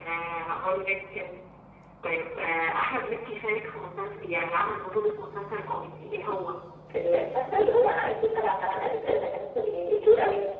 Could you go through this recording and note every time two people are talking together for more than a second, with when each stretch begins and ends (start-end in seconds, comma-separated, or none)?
none